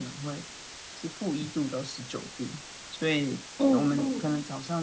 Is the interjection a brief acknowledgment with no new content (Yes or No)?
Yes